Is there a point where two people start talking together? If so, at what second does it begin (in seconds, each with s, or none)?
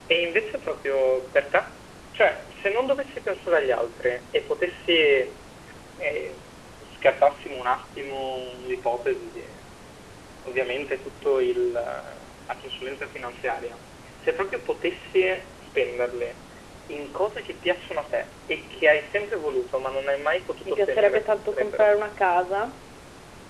20.6 s